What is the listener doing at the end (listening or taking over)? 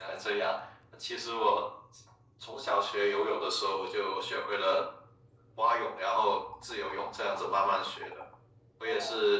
listening